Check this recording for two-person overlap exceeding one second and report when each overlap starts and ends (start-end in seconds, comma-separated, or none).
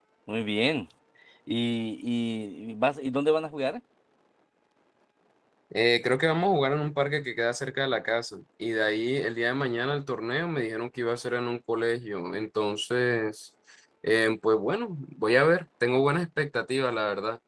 none